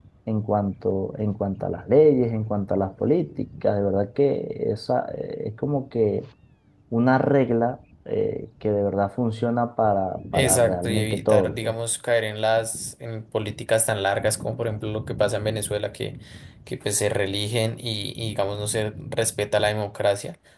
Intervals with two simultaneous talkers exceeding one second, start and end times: 10.3-11.8

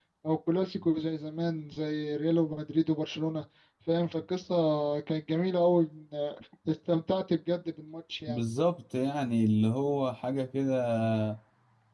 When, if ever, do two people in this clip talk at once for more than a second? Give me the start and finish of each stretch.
none

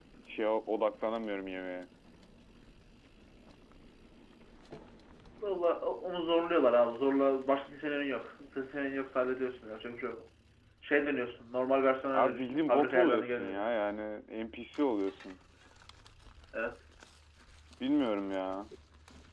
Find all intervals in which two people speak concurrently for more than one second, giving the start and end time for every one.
12.1-13.7

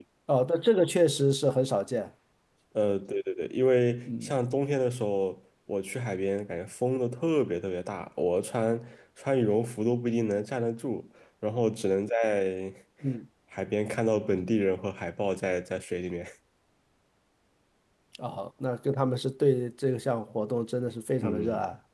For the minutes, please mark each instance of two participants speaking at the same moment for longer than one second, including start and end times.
none

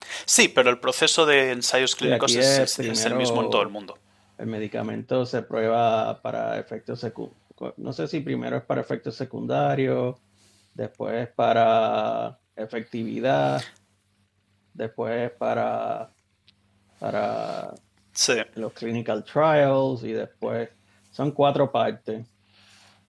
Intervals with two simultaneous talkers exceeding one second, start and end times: 2.0-3.7

